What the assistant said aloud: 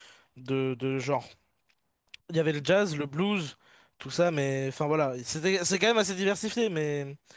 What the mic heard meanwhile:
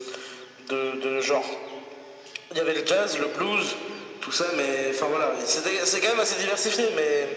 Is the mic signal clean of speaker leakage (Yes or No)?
No